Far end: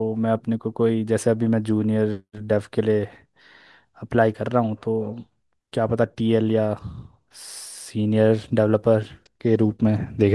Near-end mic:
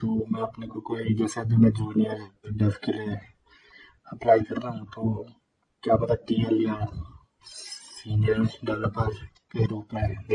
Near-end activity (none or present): none